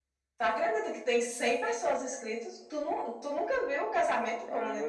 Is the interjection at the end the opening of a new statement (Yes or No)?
Yes